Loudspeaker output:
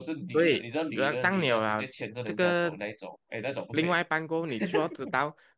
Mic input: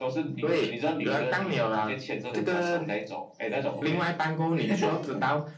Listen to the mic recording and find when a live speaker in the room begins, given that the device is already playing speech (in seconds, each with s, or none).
none